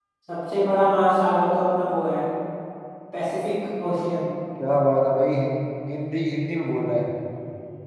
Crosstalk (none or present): none